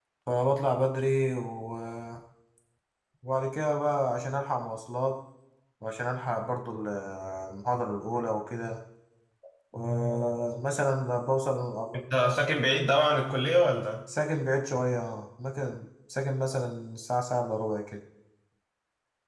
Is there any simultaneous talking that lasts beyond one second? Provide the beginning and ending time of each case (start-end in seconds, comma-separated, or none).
none